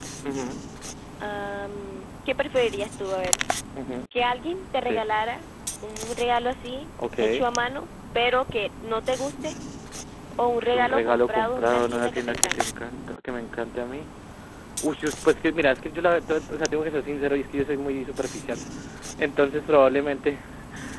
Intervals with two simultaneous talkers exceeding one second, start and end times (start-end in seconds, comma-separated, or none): 10.6-12.6